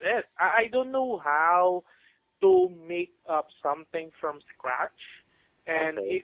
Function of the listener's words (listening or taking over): listening